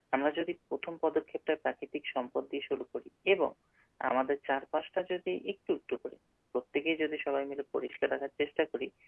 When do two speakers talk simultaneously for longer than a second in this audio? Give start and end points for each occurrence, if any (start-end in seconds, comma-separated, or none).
none